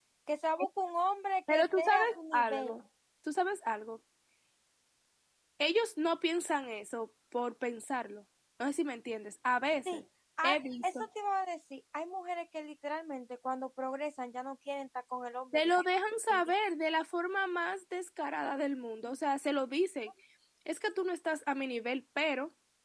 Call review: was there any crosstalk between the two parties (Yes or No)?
Yes